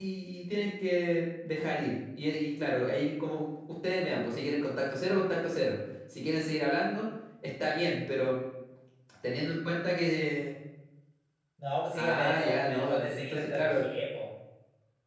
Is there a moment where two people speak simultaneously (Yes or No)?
Yes